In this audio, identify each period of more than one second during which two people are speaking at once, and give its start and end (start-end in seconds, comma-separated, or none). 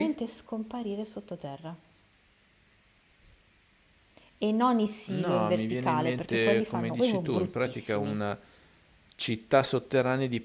5.1-8.2